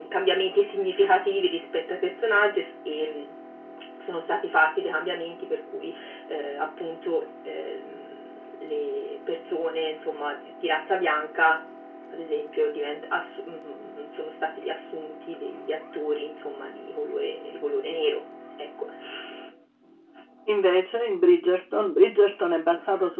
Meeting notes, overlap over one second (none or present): none